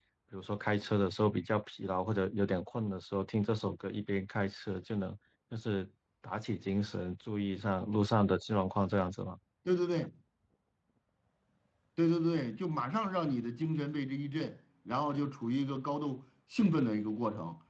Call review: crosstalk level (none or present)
none